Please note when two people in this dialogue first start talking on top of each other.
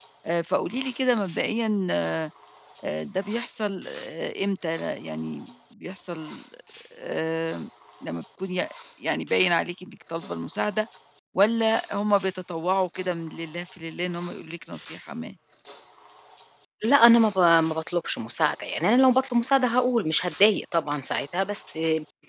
none

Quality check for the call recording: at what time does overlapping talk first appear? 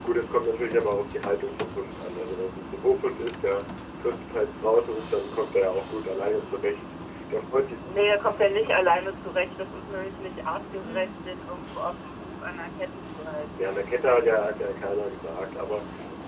none

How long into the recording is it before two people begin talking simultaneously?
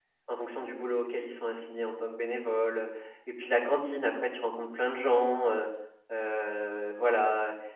none

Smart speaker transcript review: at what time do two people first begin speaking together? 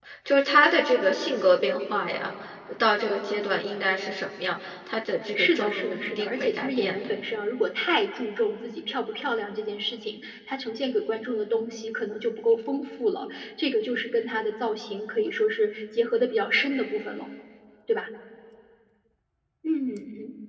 5.3 s

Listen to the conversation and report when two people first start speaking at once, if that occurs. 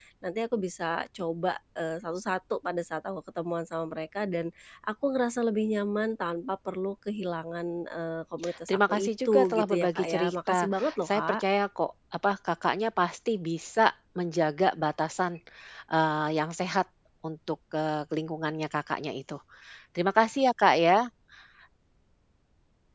8.4 s

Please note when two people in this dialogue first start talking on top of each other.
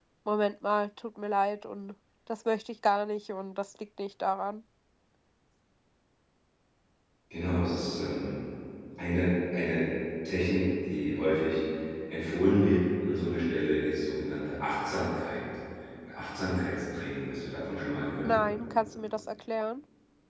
none

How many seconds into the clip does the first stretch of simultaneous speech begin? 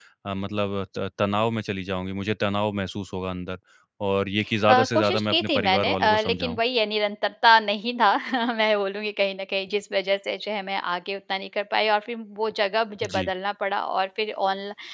4.7 s

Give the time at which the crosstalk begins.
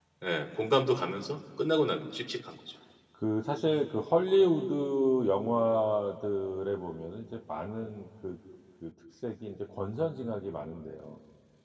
none

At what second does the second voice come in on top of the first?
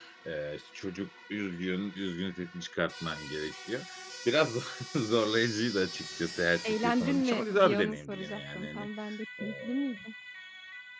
6.6 s

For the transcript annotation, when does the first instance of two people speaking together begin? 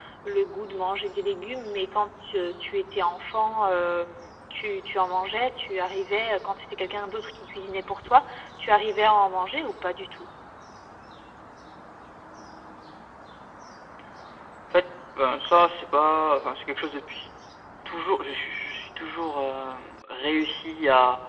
none

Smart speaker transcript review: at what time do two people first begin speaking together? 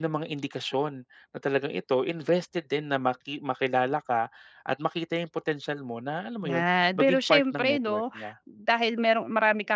6.4 s

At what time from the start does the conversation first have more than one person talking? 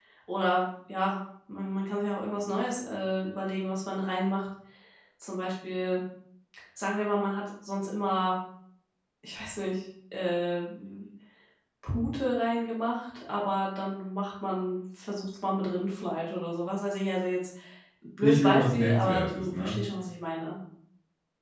18.2 s

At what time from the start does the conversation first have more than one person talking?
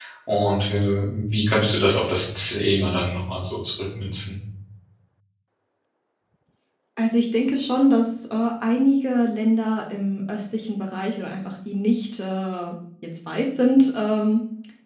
none

